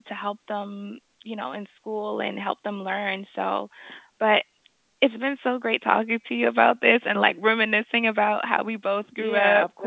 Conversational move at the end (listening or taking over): taking over